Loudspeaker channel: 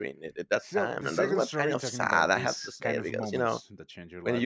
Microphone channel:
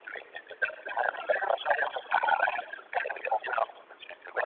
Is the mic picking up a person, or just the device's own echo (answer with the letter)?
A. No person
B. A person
A